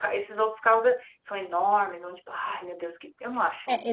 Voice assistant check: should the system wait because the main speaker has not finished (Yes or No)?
No